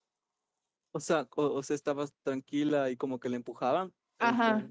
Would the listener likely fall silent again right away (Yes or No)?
No